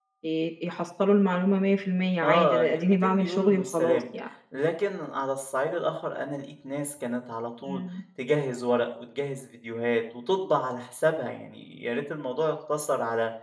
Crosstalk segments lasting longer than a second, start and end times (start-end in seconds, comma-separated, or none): 2.2-4.0